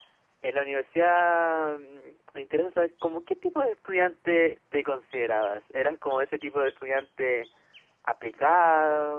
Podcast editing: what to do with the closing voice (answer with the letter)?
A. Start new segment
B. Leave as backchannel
B